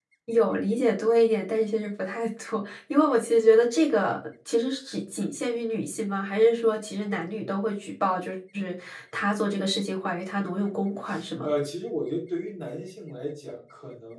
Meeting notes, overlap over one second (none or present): none